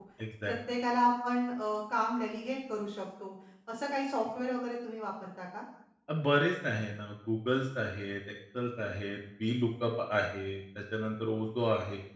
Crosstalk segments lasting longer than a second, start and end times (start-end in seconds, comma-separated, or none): none